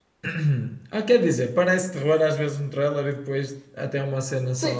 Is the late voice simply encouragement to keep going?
No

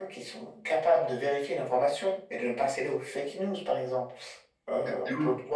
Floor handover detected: No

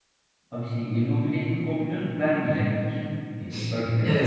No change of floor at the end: No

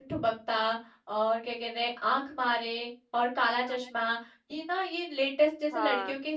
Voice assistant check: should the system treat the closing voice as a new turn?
No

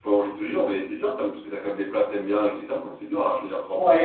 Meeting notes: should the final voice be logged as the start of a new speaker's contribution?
Yes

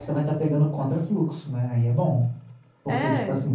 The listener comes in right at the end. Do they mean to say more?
No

